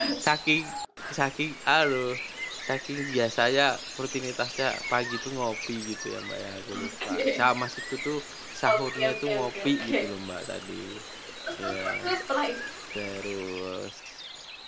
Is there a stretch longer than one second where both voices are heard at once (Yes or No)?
Yes